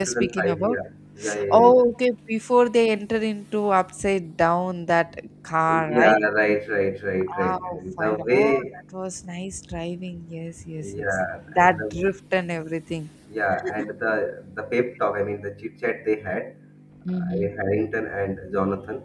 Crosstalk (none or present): present